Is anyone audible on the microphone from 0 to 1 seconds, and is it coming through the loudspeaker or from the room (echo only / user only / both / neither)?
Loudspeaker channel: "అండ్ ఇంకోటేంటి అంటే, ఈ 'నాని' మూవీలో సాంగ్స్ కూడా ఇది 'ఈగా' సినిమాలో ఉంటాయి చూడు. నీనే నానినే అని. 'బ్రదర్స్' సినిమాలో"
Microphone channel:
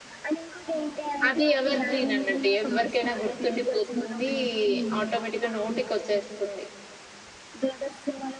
echo only